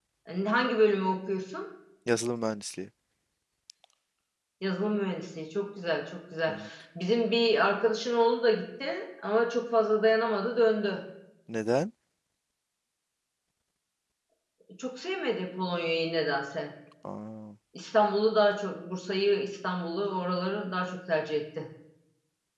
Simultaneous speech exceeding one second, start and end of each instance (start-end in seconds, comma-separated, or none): none